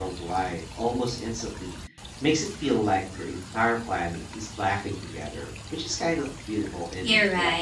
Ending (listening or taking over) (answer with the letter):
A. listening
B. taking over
B